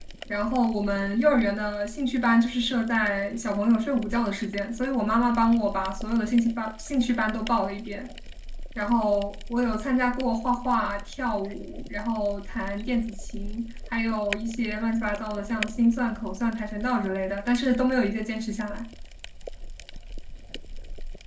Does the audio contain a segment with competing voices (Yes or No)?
No